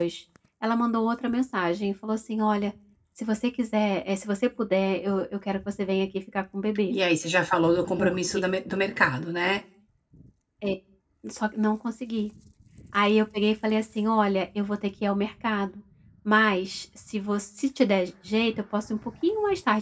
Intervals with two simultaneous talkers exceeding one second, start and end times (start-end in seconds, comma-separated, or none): none